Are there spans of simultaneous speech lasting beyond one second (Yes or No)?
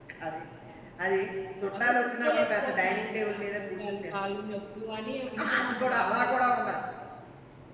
Yes